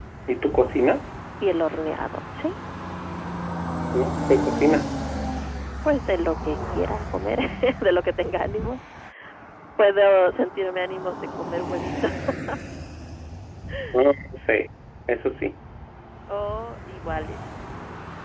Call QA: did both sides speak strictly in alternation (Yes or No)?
Yes